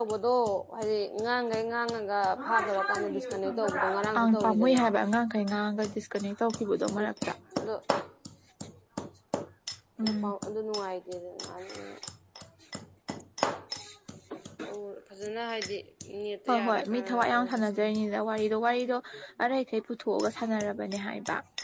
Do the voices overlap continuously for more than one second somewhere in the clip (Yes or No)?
Yes